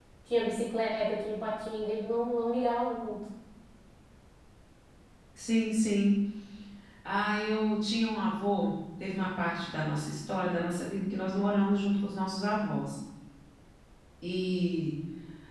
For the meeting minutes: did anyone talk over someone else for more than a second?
No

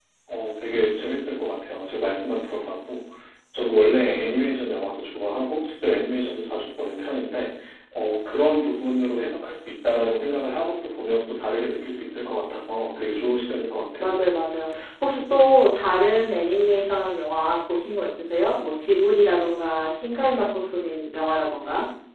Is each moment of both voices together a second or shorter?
Yes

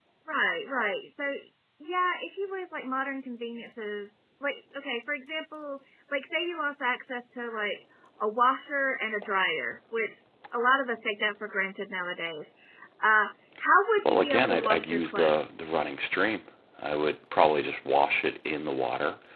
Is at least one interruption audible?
Yes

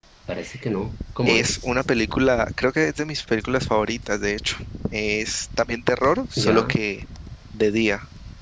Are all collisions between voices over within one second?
Yes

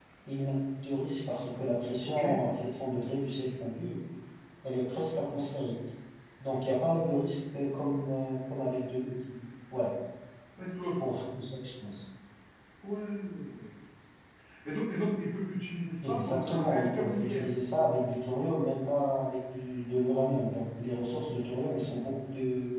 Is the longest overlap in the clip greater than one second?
Yes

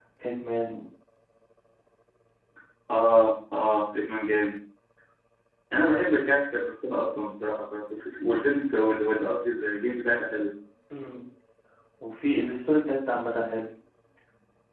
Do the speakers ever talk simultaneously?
No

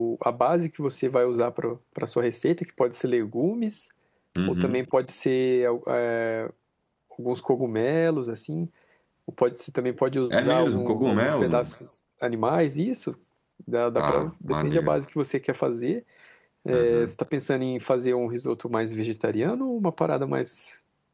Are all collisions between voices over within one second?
No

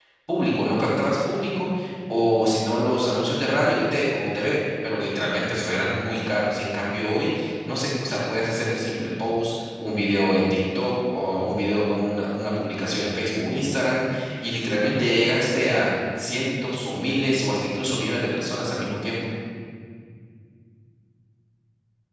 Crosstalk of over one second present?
No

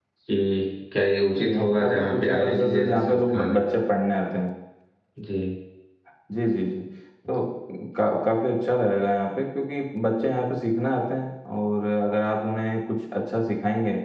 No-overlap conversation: No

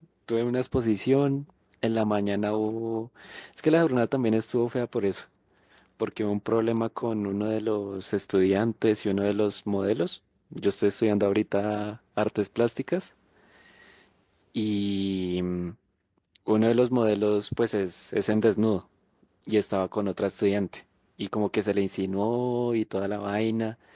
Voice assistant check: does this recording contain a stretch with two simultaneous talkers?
No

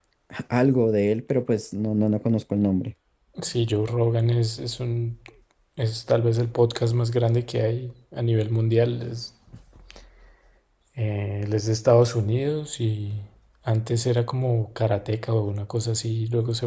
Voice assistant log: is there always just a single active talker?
Yes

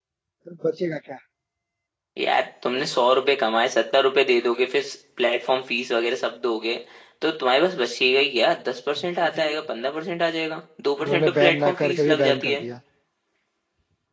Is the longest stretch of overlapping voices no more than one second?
No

